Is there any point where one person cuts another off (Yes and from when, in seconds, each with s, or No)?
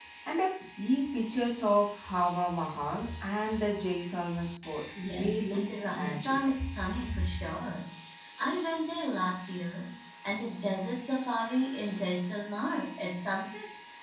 Yes, from 5.0 s